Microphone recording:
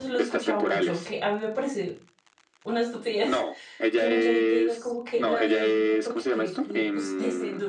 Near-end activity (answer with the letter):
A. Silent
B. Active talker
B